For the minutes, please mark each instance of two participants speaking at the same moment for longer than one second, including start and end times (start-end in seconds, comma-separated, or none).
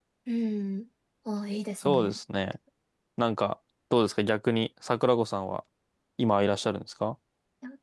none